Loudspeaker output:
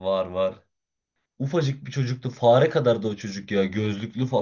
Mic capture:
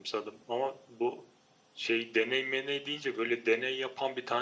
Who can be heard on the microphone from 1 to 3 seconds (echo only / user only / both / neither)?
user only